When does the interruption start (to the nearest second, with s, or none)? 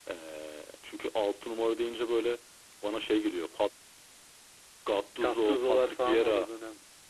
5 s